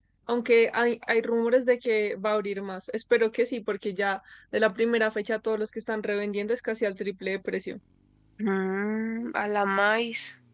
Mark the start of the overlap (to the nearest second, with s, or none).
none